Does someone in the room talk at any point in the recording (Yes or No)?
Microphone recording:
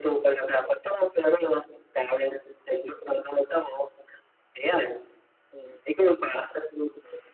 No